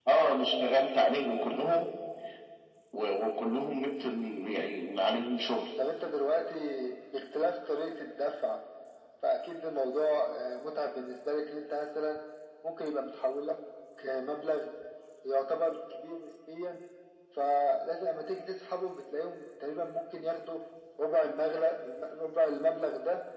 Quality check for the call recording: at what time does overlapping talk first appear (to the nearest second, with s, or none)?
none